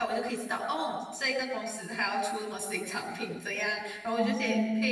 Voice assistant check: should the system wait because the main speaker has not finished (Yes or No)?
Yes